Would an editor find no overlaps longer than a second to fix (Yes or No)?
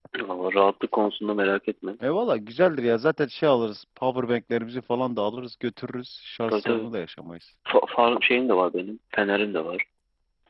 Yes